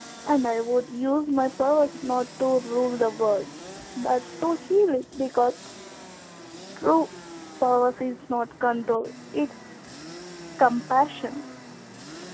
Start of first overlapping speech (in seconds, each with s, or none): none